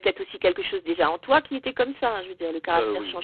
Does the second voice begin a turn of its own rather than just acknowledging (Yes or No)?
No